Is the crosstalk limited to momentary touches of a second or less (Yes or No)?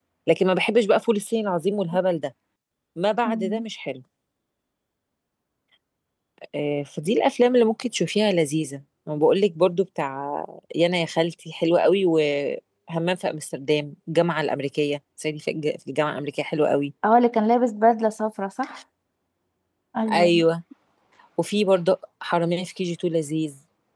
Yes